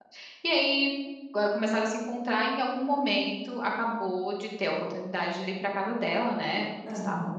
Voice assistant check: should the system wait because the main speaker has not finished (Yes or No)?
Yes